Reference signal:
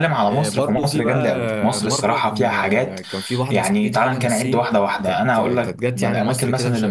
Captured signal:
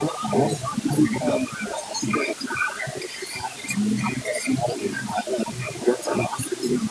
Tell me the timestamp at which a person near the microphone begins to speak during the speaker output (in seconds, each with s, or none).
none